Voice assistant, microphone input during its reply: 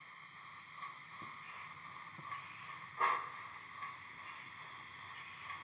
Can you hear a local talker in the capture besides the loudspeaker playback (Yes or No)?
No